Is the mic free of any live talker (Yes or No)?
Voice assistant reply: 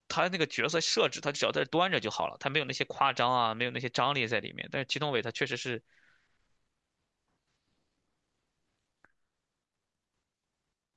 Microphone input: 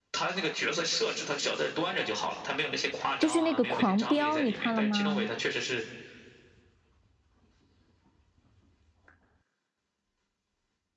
No